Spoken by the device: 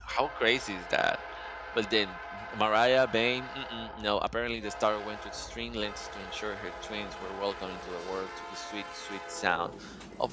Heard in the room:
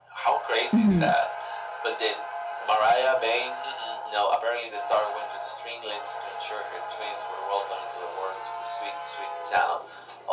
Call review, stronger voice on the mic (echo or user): user